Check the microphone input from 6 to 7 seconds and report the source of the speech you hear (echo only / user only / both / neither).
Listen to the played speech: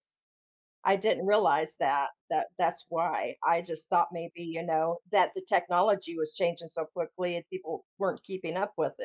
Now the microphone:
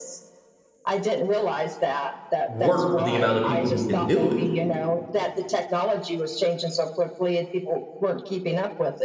echo only